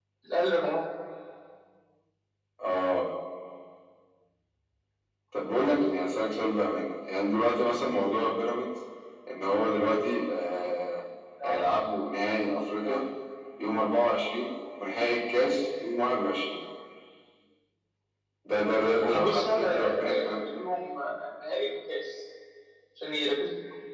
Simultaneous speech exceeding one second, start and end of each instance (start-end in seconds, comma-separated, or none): 19.0-20.5